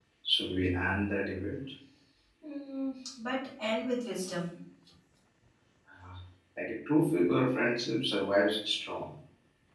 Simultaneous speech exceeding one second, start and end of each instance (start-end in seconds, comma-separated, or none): none